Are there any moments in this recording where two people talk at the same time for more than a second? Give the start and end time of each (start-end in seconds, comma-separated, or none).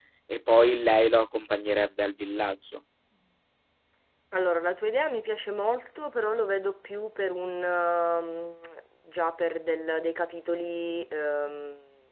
none